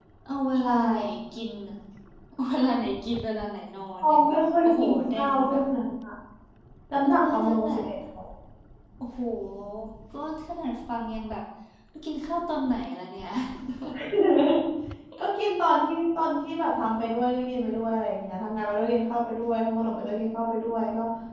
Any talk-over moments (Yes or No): Yes